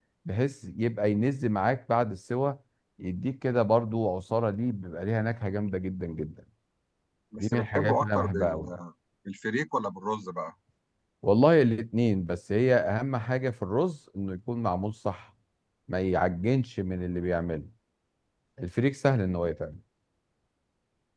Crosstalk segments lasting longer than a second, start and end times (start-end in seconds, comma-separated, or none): 7.4-8.6